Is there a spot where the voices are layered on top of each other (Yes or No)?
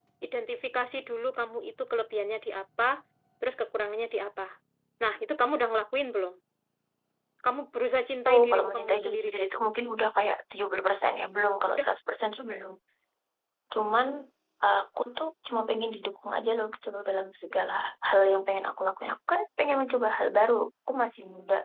Yes